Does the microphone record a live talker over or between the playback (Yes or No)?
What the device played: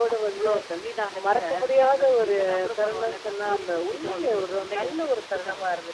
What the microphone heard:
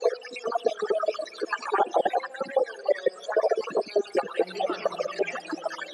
Yes